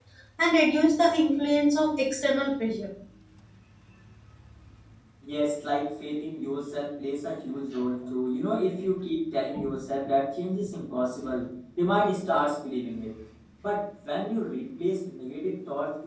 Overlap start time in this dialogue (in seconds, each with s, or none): none